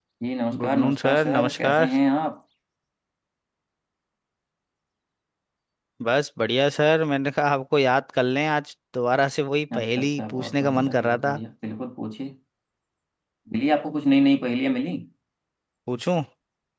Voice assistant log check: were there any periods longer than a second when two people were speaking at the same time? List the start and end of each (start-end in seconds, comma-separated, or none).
0.6-1.9, 9.8-11.3